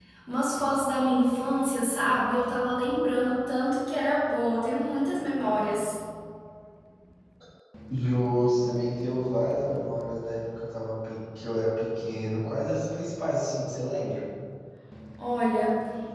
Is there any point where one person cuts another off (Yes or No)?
No